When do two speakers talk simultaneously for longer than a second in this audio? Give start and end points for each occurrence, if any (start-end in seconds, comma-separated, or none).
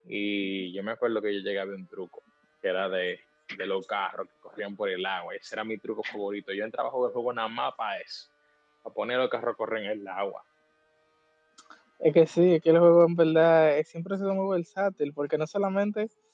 none